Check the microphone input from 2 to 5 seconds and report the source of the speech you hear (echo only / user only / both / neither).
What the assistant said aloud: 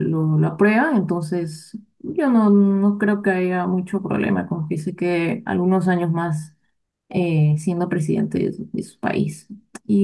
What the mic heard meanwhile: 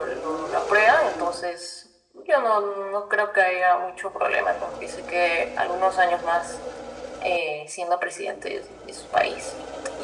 echo only